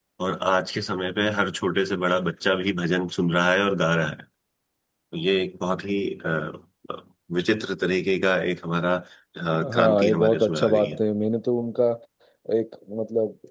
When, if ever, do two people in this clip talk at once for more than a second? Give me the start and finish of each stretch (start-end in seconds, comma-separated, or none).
9.8-11.0